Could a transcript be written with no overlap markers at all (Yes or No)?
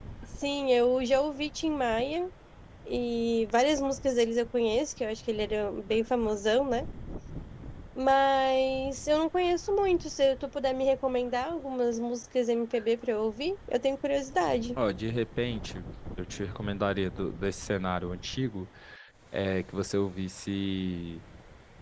Yes